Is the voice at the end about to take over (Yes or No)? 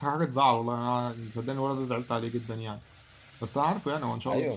No